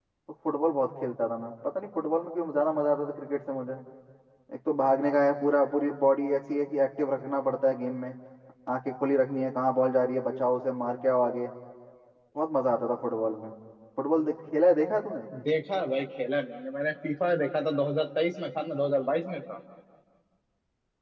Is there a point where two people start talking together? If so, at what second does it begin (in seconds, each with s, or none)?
none